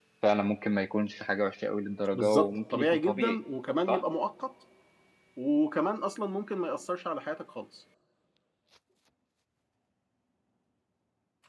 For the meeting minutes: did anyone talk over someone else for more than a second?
Yes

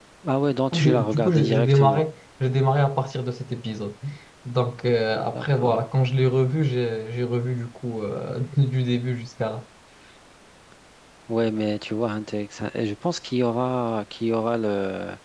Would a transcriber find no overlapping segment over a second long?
No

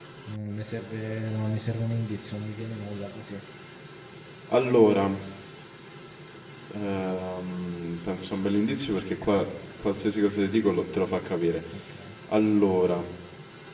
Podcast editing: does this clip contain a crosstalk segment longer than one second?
No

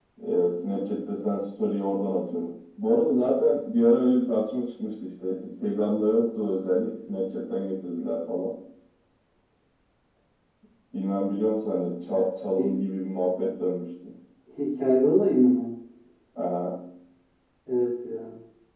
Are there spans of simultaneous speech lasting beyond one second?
No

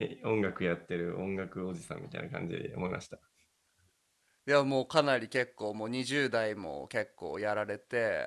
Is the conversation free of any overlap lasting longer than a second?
Yes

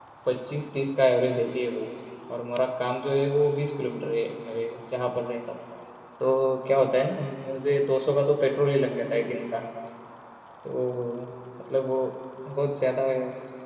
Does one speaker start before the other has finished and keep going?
No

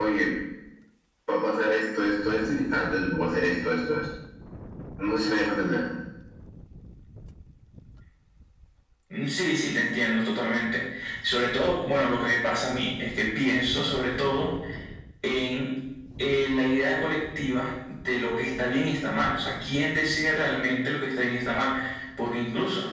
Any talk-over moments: No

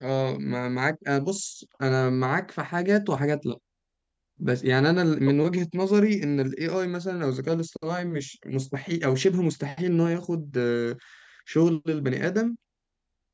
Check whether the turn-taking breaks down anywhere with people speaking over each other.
No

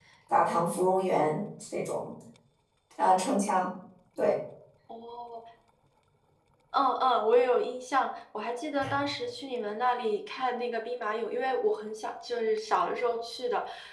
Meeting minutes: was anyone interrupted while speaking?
No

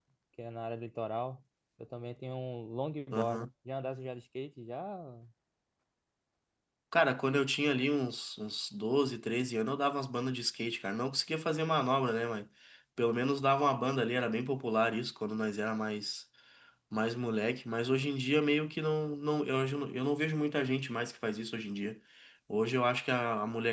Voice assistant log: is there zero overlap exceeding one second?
Yes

